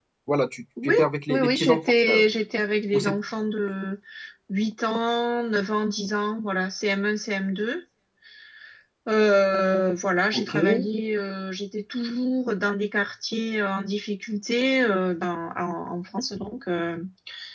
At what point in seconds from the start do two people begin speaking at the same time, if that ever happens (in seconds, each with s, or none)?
0.8 s